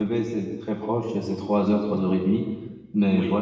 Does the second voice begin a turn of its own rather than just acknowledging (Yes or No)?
No